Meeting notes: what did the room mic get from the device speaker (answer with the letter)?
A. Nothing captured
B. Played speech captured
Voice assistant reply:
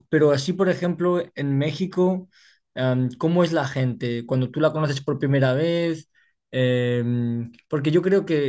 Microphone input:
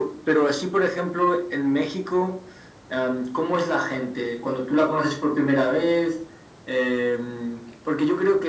B